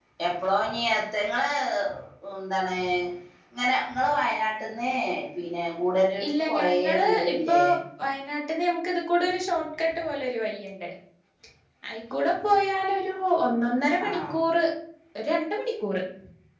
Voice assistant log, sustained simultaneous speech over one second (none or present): present